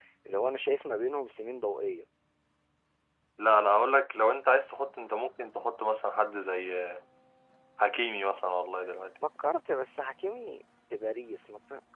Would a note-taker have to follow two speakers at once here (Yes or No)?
No